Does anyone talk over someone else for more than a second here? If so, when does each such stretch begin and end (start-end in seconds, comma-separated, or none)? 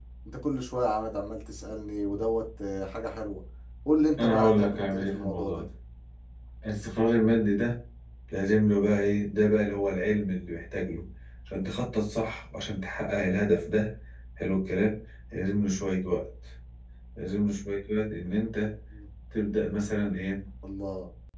4.2-5.6